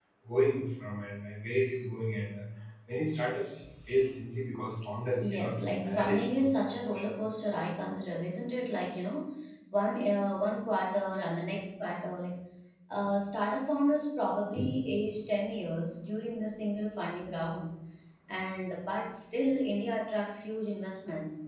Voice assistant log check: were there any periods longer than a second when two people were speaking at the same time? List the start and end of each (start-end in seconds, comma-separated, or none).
5.2-7.2